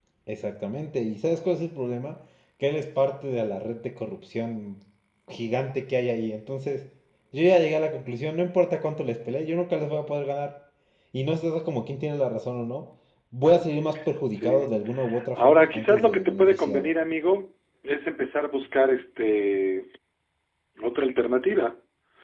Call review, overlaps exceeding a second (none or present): present